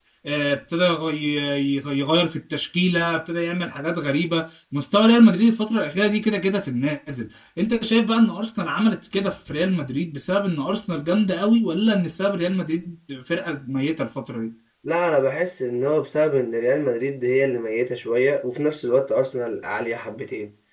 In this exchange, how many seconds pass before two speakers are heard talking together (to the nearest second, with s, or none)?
none